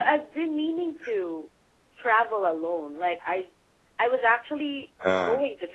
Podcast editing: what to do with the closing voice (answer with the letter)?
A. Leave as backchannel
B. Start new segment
A